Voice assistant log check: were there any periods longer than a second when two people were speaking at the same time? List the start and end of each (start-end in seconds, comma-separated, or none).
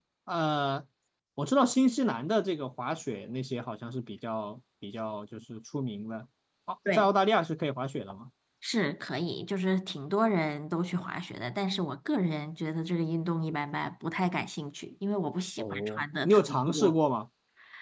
15.6-17.0